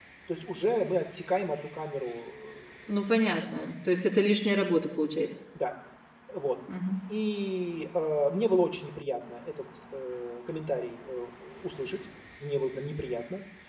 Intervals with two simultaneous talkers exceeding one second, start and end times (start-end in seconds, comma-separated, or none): none